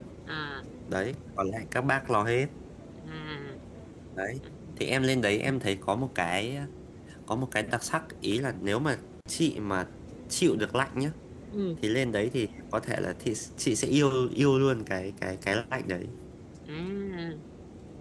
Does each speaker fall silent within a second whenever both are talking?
Yes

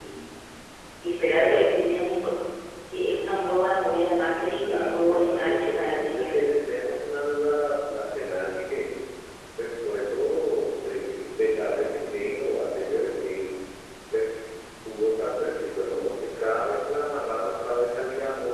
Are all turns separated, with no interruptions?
No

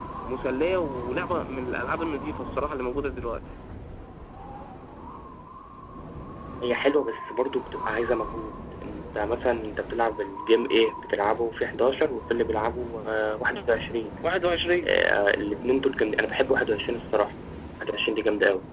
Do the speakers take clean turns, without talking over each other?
Yes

